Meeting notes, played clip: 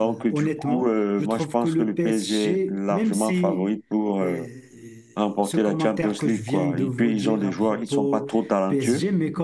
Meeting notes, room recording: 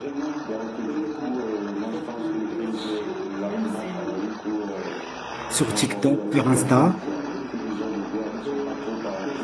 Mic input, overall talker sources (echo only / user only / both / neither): both